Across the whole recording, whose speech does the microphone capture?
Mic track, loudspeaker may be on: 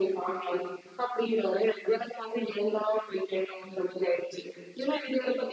echo only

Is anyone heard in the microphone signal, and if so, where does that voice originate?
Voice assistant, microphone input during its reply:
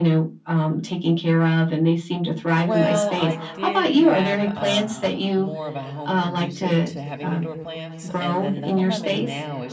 both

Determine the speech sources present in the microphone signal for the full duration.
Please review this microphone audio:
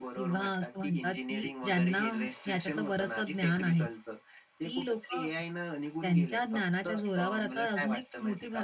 both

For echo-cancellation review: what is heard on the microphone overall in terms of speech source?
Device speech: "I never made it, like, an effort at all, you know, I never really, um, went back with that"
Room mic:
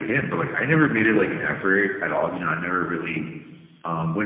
echo only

